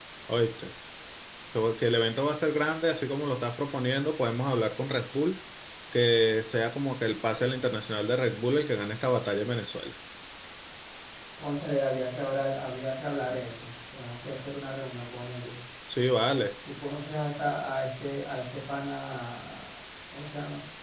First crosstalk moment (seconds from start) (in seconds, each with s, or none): none